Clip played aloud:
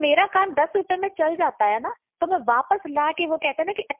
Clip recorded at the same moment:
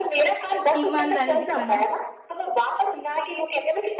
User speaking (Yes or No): Yes